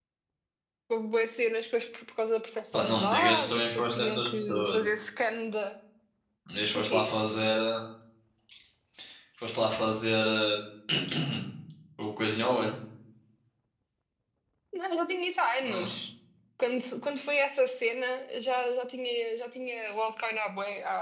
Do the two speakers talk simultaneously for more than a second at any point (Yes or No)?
Yes